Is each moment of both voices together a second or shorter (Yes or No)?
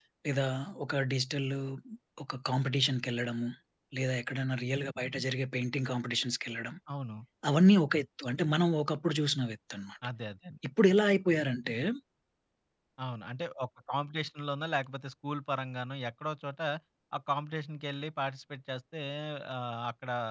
Yes